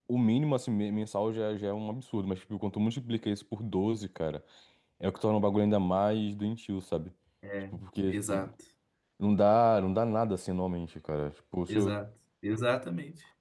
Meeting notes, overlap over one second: none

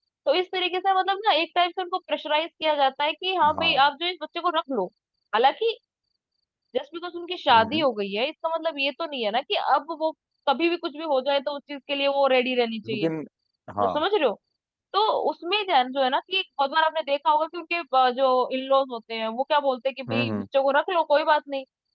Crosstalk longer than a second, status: none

